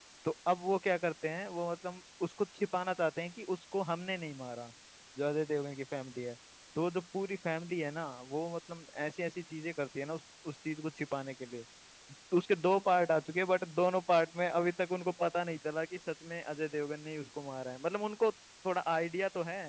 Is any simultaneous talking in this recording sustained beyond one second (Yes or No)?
No